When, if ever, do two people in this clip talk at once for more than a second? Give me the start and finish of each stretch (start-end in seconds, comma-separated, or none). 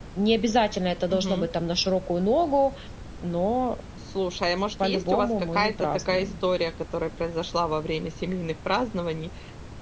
4.8-6.3